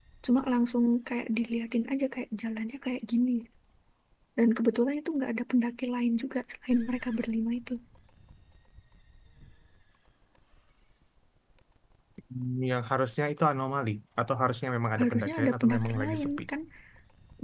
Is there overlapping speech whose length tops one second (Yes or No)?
Yes